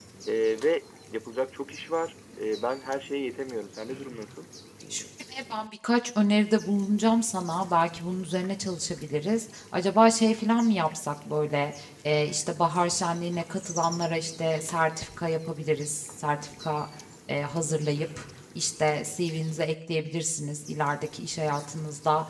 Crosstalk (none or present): none